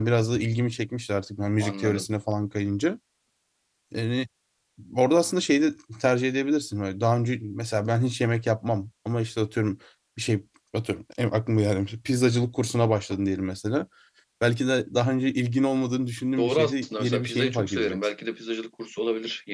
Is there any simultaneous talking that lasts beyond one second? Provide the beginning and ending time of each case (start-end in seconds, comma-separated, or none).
16.4-18.0